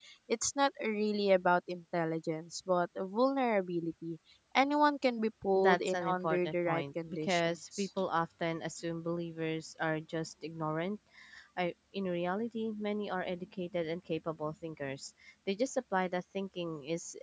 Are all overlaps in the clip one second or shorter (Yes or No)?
No